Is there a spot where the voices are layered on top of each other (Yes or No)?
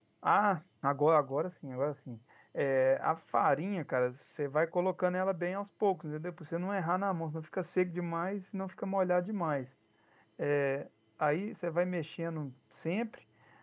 No